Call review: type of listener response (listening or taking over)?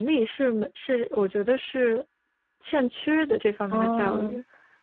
taking over